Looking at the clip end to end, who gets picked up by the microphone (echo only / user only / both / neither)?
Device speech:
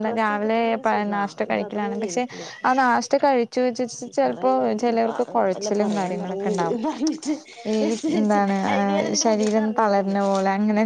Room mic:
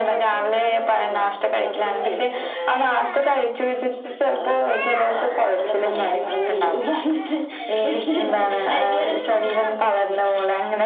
echo only